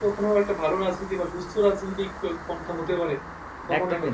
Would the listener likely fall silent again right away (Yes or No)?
No